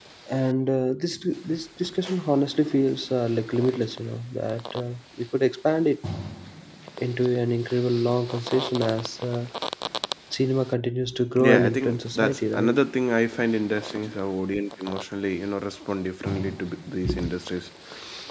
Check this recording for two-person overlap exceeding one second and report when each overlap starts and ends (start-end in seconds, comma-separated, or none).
11.4-12.8